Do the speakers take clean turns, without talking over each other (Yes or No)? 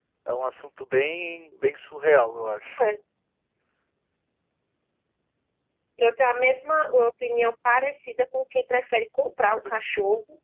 Yes